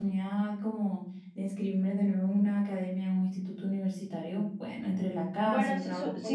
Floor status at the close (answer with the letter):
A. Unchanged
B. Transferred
B